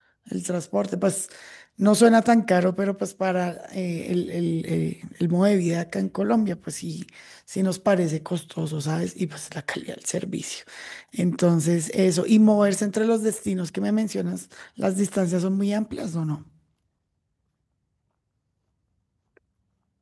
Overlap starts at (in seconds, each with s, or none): none